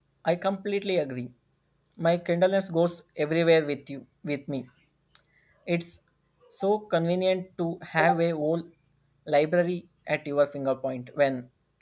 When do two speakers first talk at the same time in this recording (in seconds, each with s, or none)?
none